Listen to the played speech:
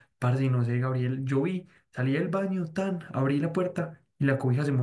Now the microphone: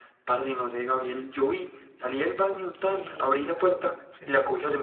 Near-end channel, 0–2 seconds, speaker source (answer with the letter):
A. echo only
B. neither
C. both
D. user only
A